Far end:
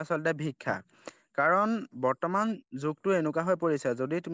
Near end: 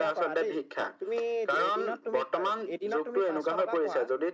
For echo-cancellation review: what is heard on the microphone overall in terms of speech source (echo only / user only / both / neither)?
both